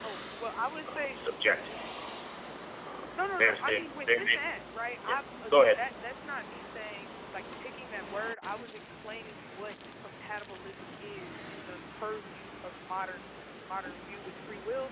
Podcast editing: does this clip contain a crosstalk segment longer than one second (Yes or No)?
Yes